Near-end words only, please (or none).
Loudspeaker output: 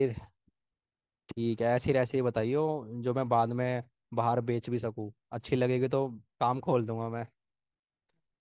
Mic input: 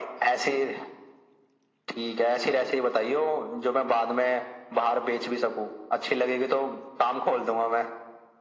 none